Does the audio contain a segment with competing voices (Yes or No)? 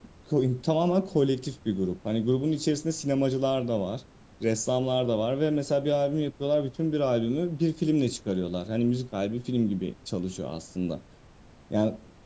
No